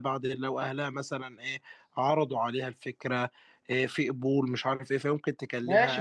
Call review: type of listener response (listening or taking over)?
taking over